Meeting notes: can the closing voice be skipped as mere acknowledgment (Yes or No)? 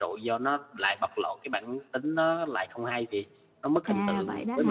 No